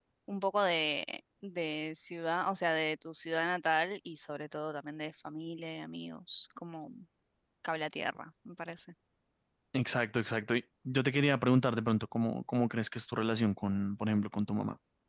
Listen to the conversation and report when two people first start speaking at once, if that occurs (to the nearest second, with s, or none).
none